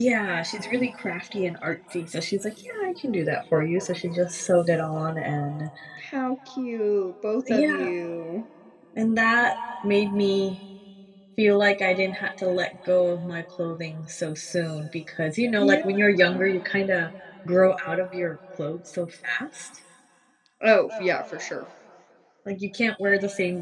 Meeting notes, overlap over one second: none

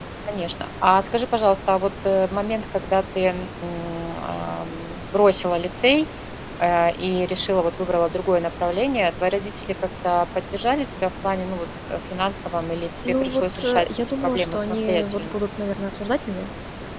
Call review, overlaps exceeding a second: present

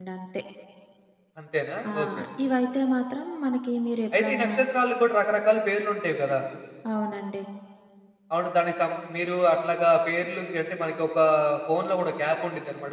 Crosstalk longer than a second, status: none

